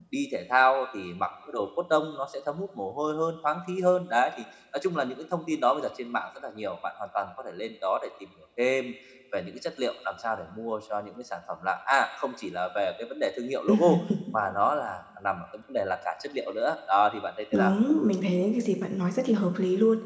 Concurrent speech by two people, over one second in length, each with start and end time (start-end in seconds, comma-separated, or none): none